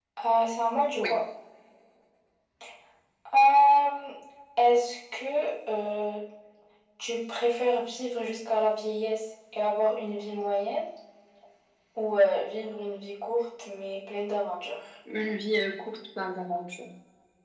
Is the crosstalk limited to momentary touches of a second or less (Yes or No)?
Yes